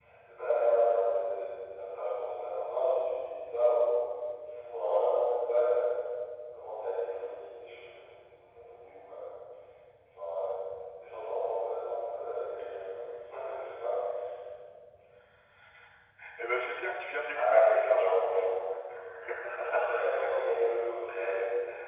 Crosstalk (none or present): present